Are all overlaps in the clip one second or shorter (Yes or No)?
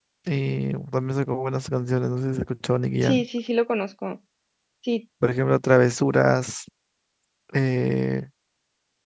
Yes